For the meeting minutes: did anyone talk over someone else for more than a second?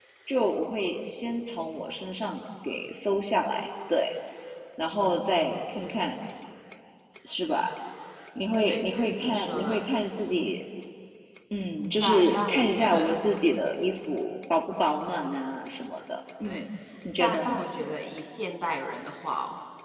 Yes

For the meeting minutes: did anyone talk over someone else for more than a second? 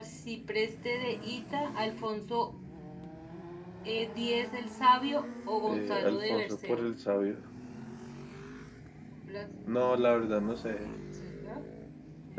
Yes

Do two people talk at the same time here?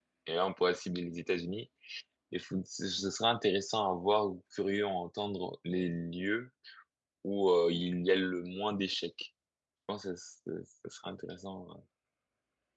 No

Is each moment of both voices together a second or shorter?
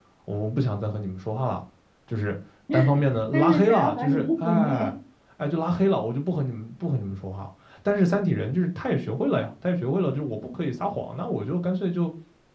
No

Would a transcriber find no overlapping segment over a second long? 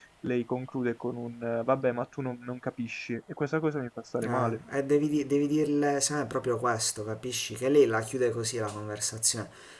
Yes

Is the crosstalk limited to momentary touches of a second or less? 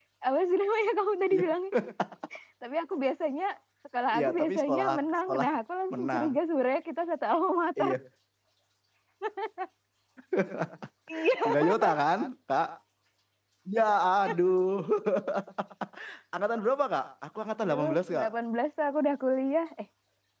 No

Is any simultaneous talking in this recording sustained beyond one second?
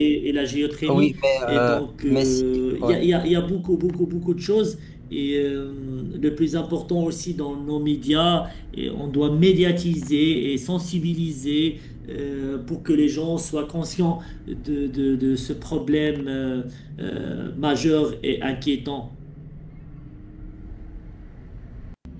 Yes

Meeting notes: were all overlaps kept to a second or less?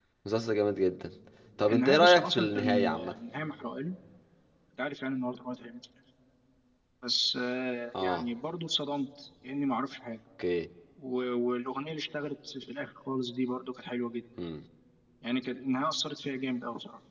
No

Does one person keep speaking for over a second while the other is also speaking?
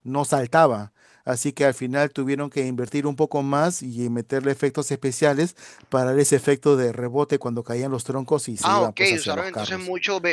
Yes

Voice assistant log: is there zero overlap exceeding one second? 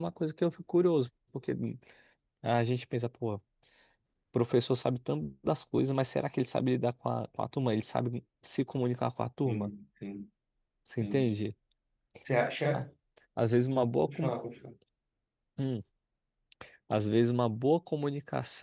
Yes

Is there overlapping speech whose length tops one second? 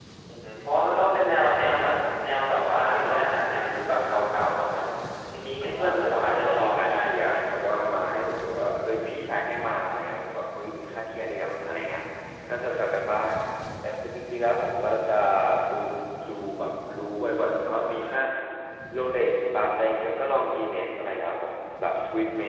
Yes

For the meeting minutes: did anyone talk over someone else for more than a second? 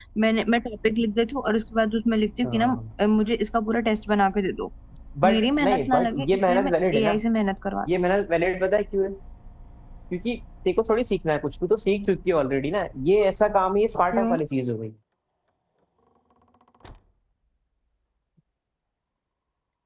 Yes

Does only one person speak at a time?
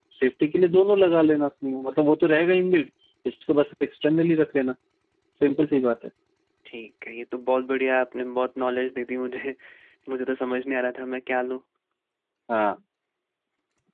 Yes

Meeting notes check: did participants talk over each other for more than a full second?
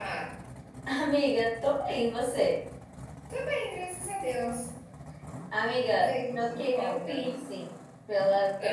Yes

